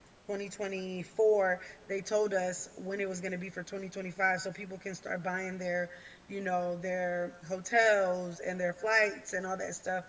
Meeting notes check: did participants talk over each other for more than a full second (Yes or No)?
No